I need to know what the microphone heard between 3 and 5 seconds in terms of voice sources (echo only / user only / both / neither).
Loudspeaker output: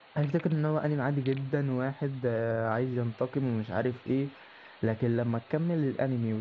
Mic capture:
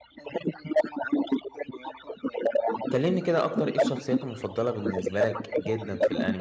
both